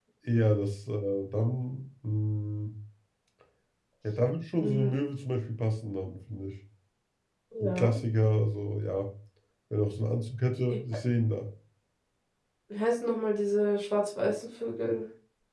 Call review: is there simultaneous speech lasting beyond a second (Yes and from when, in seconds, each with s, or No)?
No